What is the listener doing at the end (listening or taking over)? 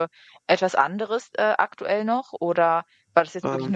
listening